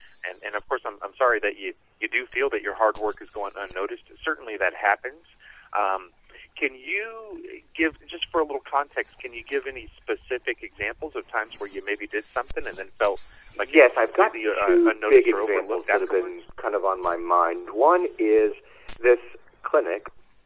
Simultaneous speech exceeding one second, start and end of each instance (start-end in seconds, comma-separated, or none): 13.6-16.4